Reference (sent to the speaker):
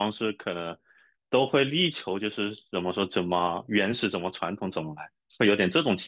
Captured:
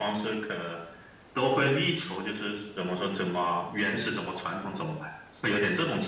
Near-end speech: none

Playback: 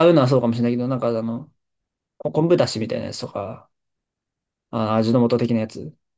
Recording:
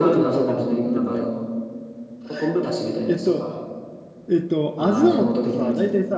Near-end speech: present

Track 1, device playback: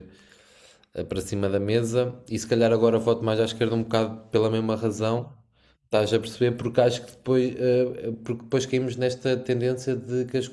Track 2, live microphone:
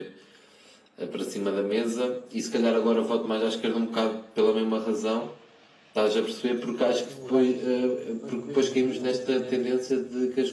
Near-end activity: present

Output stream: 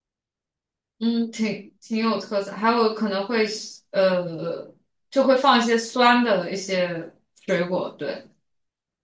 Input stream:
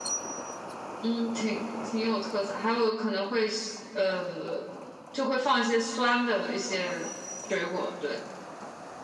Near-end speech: none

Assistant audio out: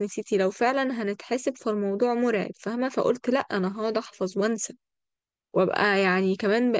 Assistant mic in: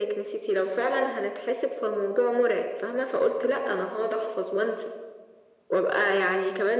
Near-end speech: none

